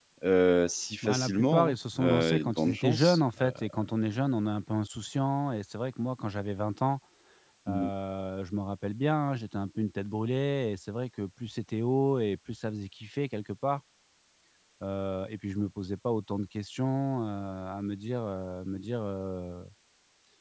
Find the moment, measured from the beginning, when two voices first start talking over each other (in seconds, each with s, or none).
1.0 s